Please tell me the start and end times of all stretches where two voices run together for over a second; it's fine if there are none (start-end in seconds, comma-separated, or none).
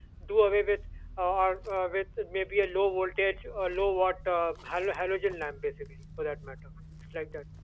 none